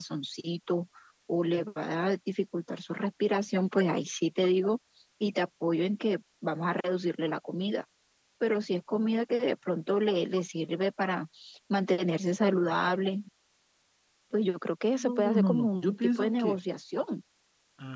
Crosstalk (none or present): present